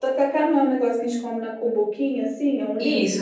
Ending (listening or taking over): taking over